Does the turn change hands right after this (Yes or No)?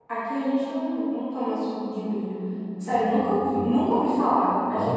Yes